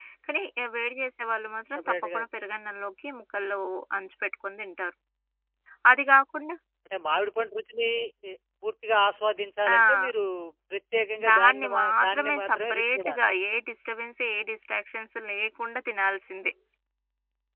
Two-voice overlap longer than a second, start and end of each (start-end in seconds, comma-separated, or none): 11.3-13.2